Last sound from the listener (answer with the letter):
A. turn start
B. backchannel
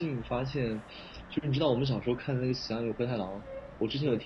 B